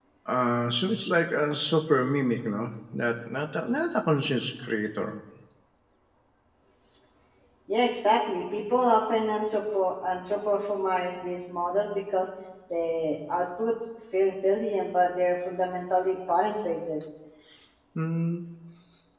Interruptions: none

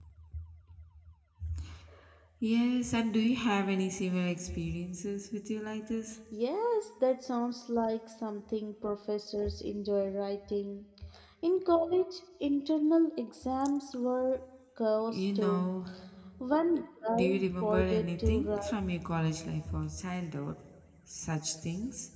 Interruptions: present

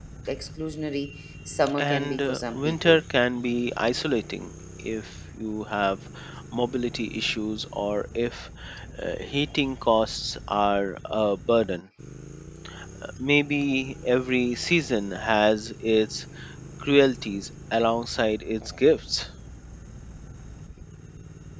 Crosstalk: present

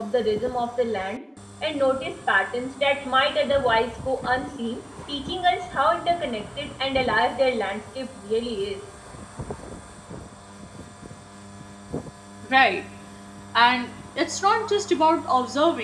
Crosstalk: none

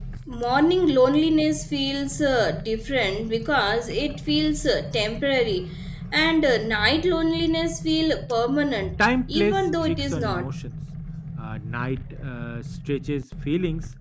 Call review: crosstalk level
present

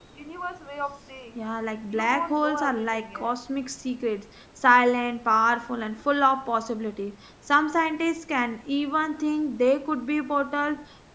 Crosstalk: present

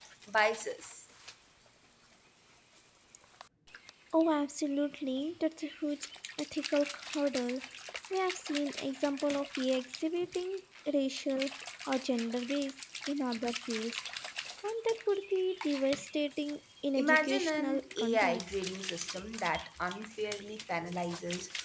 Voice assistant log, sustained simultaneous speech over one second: present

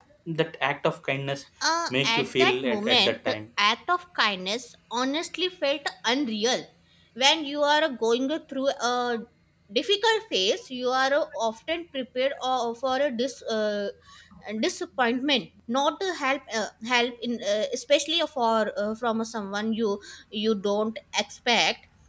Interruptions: present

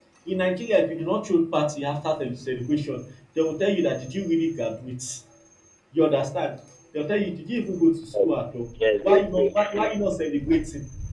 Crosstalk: present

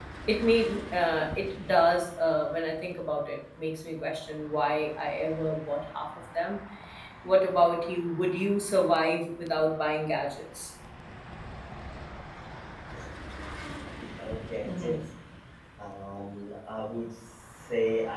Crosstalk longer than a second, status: none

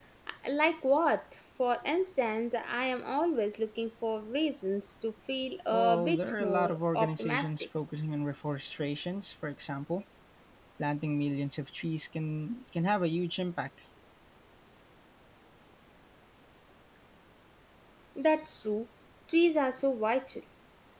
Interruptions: present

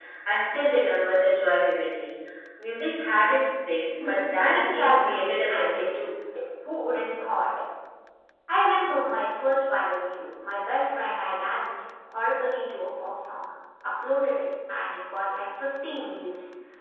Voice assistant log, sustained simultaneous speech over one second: present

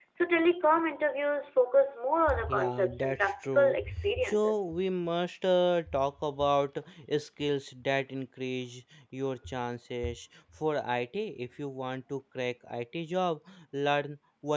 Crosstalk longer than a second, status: present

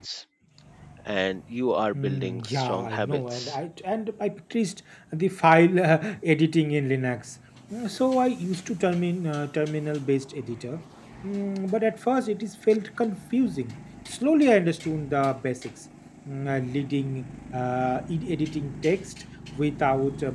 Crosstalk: present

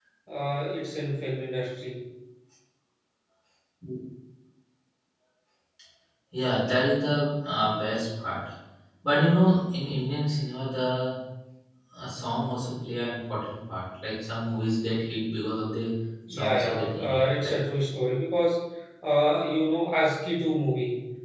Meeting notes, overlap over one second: present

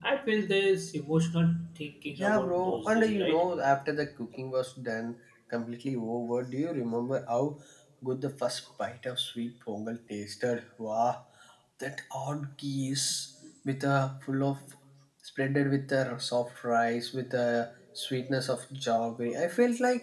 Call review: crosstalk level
present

